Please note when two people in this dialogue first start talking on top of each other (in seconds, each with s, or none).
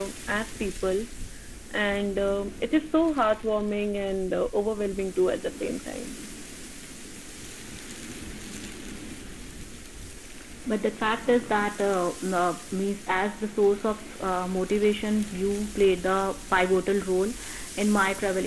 none